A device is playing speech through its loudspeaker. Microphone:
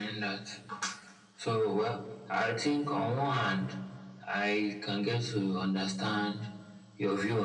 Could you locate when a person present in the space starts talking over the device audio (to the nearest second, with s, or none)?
none